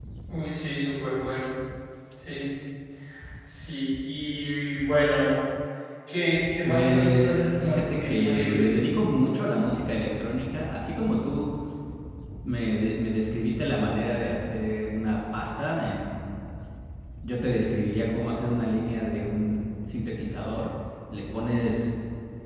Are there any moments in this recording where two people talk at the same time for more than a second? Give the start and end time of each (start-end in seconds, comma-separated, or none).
6.6-8.7